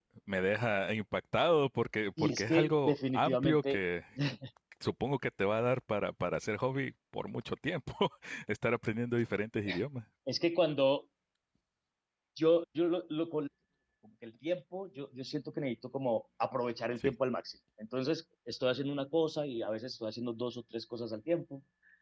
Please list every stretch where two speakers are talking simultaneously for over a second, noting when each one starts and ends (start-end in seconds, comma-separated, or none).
2.2-3.8